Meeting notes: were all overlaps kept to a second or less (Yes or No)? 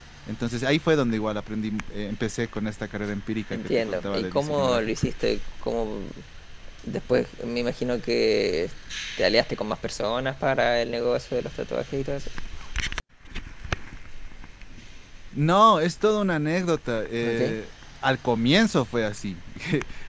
No